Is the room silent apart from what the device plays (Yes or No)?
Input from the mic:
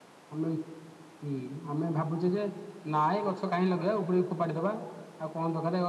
Yes